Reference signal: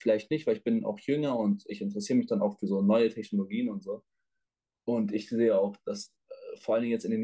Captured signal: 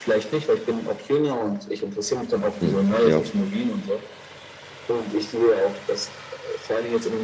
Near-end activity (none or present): present